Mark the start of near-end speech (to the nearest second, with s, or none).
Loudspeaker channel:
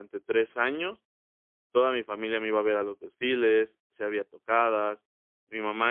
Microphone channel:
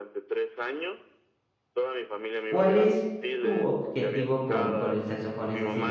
3 s